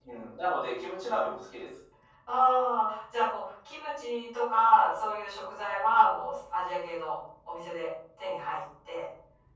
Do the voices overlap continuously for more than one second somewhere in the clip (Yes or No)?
No